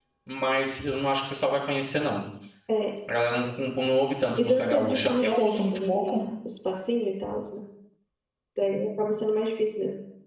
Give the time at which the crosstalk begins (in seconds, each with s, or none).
4.4 s